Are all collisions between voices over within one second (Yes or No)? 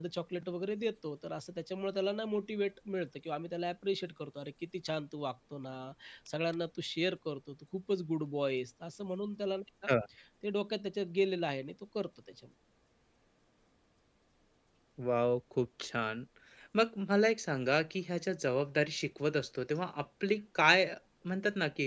Yes